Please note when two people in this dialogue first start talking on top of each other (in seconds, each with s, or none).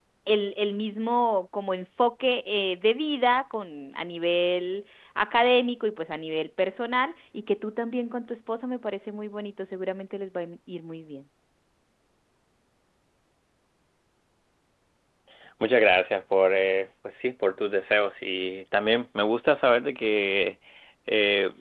none